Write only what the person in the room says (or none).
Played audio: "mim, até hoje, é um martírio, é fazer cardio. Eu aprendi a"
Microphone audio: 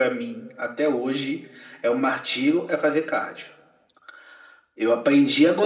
none